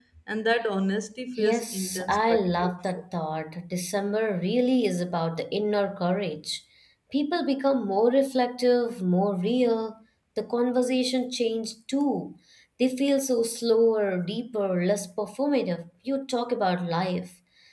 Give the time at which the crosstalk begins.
1.4 s

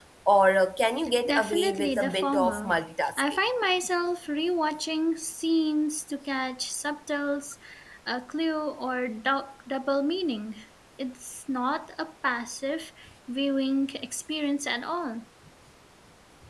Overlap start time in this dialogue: 1.3 s

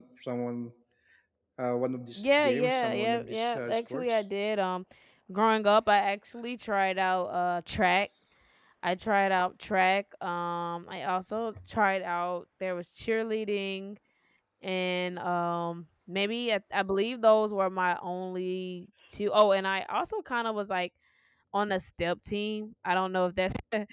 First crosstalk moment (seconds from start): 2.2 s

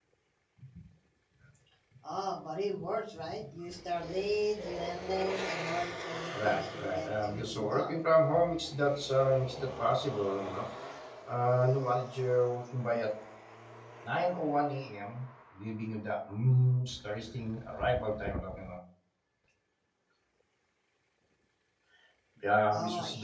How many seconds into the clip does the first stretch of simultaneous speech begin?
6.3 s

